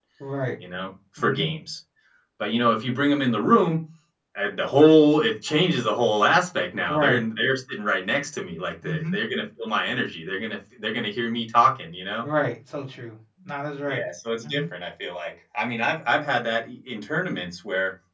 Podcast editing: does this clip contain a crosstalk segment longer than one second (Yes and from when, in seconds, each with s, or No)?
No